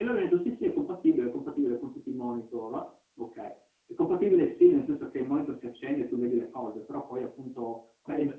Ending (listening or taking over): listening